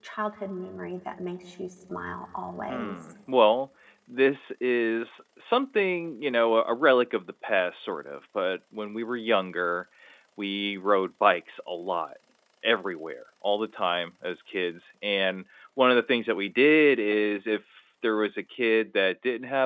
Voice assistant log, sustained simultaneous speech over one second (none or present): none